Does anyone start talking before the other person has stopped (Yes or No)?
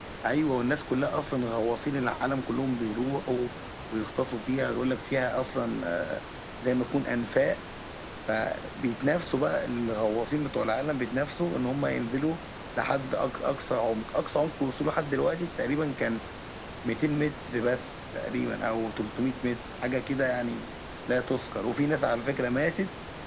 No